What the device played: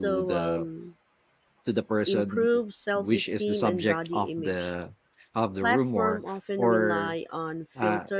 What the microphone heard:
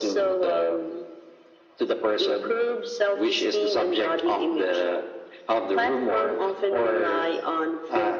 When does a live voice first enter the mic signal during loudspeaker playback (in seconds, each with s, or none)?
none